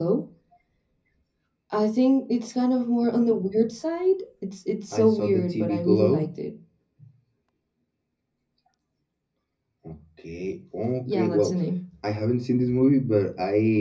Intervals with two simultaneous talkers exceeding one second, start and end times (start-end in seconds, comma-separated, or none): 4.9-6.3